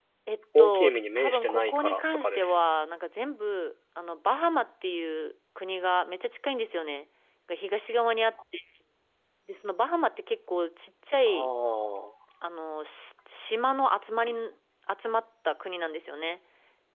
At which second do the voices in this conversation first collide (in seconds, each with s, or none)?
0.6 s